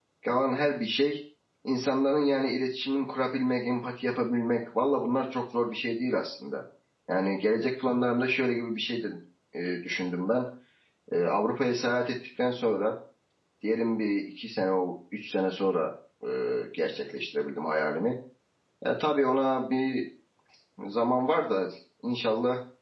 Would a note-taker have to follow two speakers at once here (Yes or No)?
No